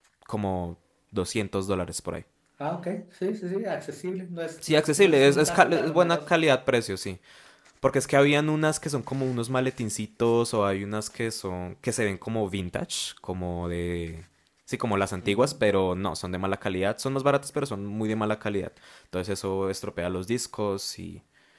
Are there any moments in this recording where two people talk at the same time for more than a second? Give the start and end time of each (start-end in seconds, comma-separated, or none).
4.6-6.4